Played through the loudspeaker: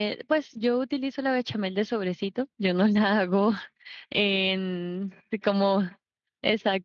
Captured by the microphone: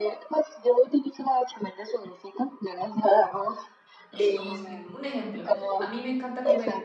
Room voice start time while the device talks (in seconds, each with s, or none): 4.1 s